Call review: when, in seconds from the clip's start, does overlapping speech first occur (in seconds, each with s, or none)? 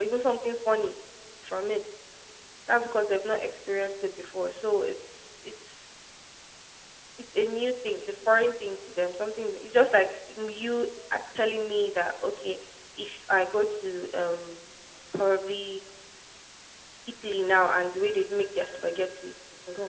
none